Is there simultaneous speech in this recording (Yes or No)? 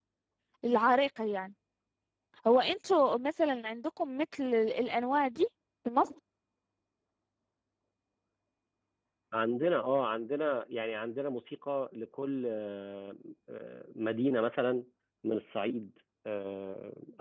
No